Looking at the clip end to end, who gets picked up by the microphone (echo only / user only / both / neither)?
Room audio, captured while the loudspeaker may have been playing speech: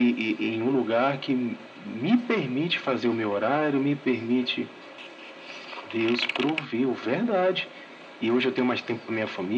echo only